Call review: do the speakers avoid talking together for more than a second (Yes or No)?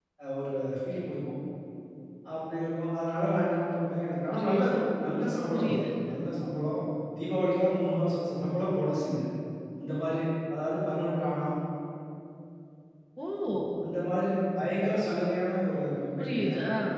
Yes